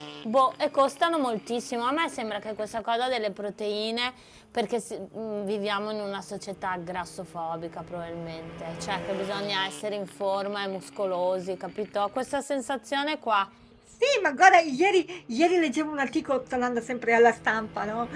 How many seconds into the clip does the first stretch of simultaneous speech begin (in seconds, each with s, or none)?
none